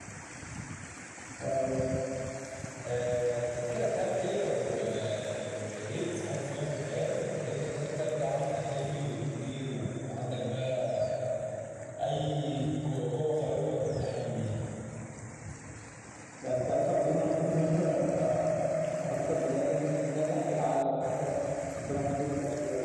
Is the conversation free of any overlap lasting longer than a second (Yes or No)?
Yes